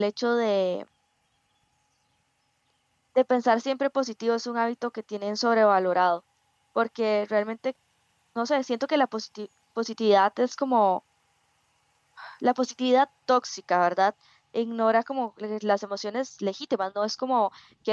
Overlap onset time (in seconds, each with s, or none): none